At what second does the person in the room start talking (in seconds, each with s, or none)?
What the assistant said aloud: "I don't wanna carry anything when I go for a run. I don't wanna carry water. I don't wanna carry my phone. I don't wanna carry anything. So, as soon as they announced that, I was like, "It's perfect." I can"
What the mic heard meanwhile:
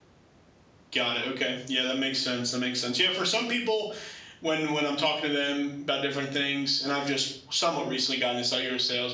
0.9 s